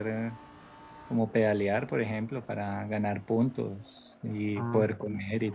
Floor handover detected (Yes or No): No